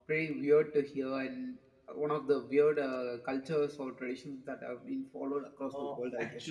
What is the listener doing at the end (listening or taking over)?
taking over